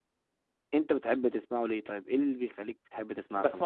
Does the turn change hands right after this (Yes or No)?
Yes